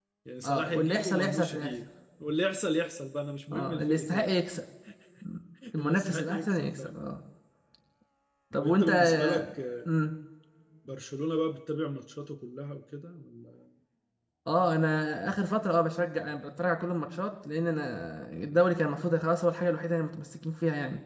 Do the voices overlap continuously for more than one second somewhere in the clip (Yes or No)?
Yes